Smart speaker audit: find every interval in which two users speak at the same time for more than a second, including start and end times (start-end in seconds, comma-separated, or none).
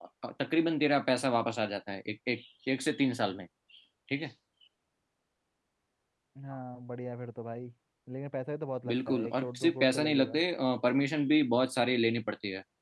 8.9-10.4